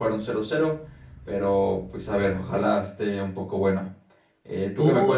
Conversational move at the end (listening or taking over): taking over